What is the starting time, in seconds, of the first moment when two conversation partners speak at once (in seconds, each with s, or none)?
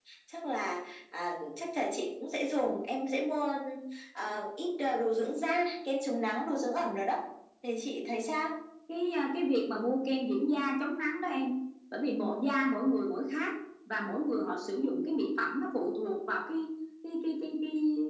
none